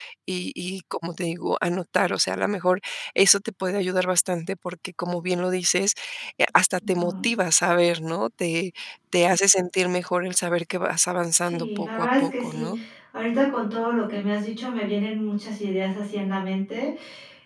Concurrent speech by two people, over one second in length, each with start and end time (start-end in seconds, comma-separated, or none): 11.4-12.7